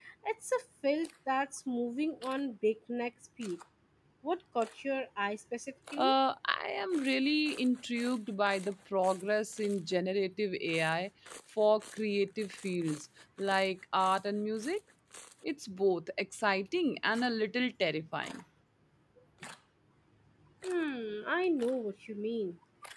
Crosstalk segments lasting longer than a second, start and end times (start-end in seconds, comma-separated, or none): none